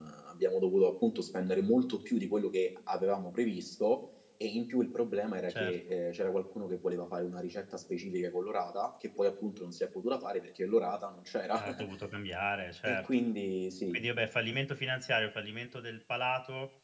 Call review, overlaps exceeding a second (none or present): none